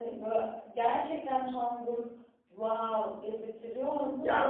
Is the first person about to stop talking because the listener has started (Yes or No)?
Yes